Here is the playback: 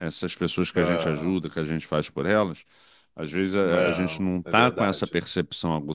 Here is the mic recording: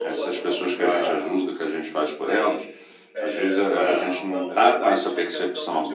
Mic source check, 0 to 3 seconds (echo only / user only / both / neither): both